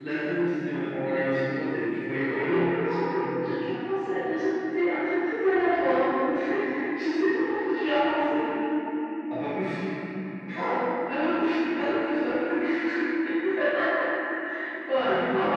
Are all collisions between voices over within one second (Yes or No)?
No